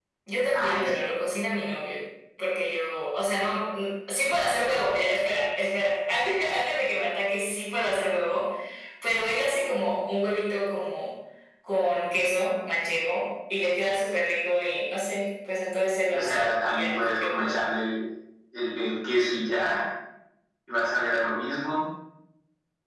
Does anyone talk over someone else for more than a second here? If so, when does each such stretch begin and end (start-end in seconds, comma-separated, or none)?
16.1-17.6